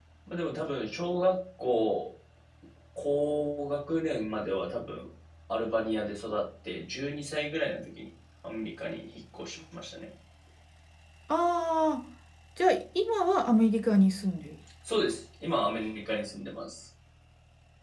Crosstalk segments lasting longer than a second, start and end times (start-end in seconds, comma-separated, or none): none